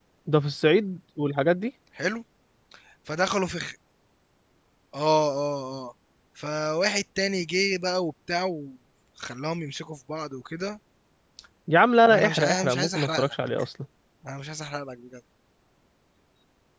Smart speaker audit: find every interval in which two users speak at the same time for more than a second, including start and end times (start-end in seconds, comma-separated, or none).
12.1-13.3